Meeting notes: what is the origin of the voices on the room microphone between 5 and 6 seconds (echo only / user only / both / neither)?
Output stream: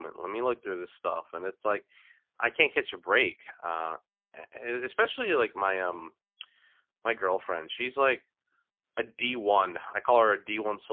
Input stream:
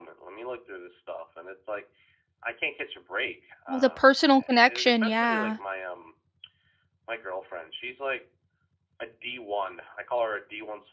both